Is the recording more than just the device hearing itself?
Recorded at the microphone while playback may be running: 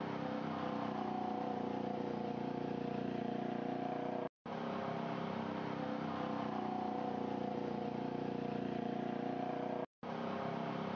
No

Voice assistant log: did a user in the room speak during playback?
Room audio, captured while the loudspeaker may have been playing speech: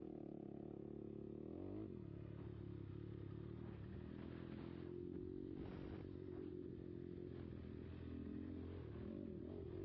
No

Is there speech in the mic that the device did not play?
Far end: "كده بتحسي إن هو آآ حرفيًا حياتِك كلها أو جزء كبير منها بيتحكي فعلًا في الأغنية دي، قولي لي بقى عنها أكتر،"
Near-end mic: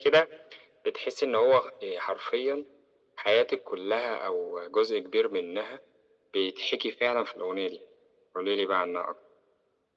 No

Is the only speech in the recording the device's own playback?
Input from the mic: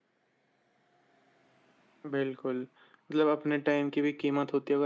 Yes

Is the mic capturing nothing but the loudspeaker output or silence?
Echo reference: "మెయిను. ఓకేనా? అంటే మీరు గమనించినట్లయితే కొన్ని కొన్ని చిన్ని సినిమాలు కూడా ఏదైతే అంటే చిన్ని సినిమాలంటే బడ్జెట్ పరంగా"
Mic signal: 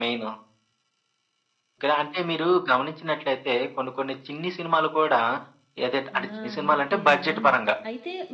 No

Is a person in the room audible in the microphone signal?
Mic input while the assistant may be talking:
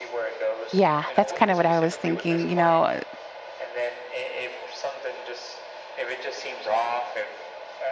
Yes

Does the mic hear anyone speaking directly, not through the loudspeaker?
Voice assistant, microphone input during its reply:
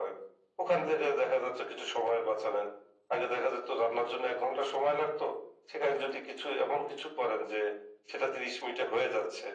No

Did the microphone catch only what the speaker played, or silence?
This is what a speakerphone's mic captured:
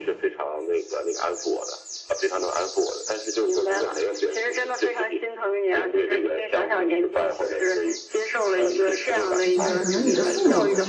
No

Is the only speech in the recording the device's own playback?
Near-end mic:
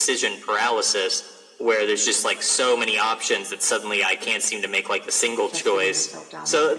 No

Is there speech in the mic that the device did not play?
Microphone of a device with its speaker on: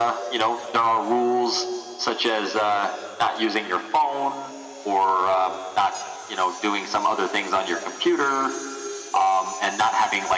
No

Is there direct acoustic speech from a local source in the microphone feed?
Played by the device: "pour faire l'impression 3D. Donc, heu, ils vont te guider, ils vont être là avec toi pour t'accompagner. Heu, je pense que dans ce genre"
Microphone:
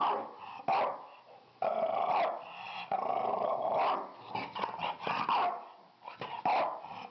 No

